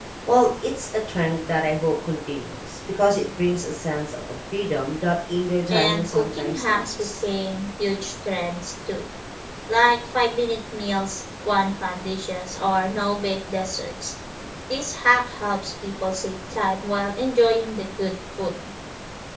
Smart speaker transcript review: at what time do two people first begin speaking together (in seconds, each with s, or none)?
5.7 s